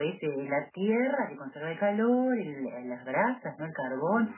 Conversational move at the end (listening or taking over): listening